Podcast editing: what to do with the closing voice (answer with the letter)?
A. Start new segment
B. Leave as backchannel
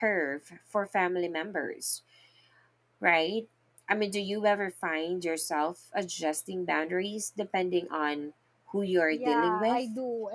A